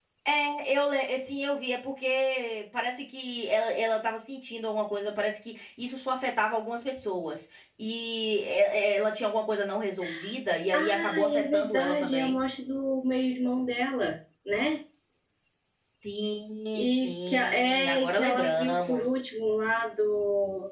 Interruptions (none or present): present